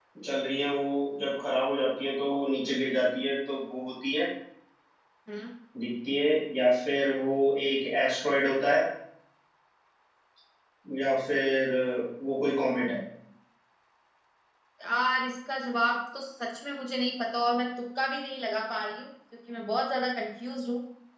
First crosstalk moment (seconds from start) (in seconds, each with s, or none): none